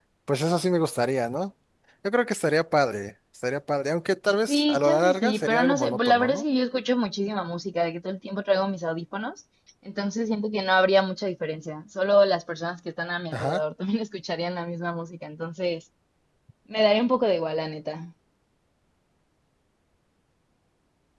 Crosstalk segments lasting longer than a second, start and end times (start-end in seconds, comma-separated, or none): 4.5-6.4